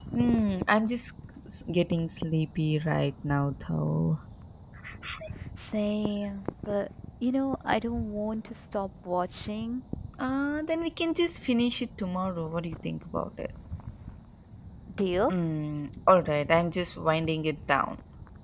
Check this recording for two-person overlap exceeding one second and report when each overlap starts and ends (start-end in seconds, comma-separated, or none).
none